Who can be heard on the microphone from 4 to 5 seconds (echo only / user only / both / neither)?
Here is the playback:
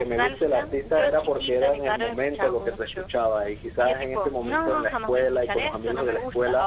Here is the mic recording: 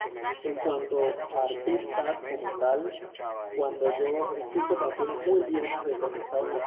both